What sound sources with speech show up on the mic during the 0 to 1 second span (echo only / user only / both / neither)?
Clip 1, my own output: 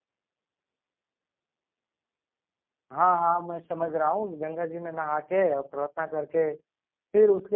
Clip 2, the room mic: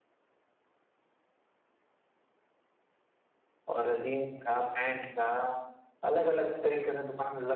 neither